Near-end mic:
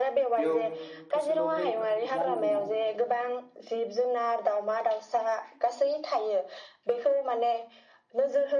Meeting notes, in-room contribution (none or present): present